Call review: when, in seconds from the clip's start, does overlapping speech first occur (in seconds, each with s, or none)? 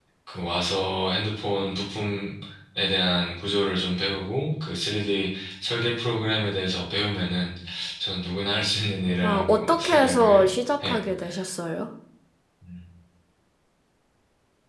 9.2 s